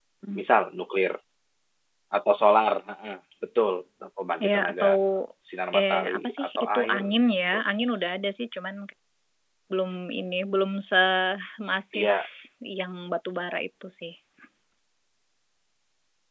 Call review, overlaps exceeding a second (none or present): present